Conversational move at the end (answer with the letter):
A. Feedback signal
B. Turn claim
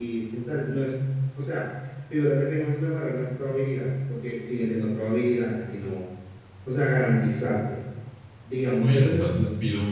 B